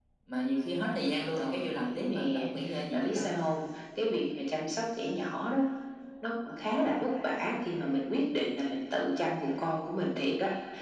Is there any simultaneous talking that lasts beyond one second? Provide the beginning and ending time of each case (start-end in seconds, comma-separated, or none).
1.2-2.5